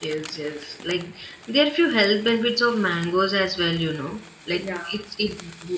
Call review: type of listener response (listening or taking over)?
listening